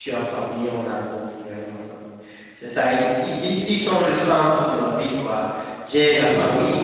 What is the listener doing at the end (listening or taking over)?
listening